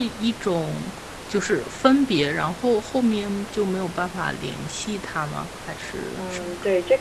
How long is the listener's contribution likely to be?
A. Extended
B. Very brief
A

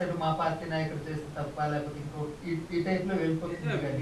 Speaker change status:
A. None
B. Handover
B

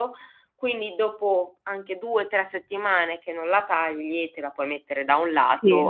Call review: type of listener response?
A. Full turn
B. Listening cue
B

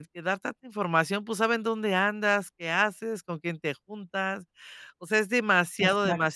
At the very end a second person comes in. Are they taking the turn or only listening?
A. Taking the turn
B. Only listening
B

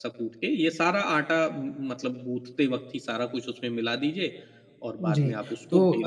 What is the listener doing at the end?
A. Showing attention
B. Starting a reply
B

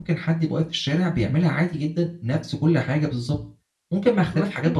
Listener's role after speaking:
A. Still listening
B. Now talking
B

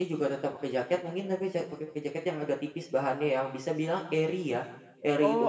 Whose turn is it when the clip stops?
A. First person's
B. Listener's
A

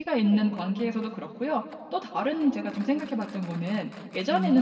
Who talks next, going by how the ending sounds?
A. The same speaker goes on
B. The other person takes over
A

